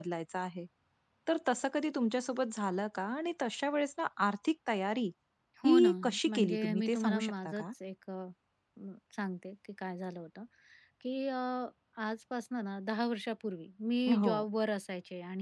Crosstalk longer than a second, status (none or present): present